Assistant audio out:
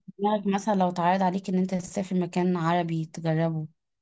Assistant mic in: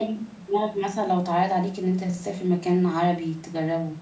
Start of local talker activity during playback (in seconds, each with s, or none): none